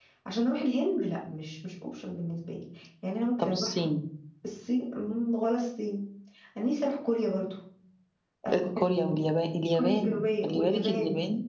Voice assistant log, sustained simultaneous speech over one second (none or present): present